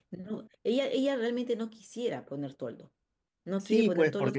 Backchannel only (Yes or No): No